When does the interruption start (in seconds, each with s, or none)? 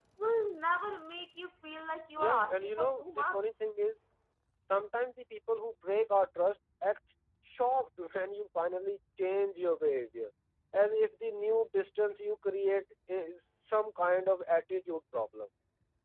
2.2 s